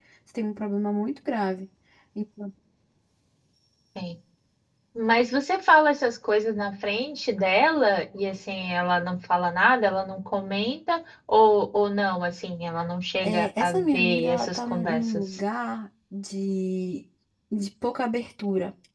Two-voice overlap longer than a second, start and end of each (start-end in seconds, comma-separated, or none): 13.2-15.2